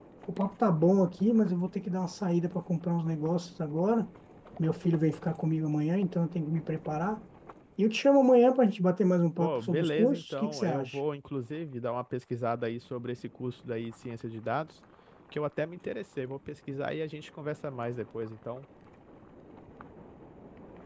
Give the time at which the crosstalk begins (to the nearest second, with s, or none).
9 s